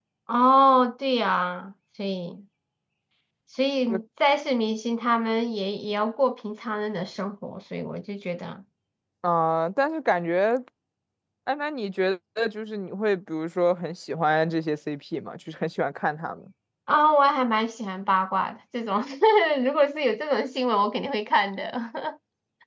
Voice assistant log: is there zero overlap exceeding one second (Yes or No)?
Yes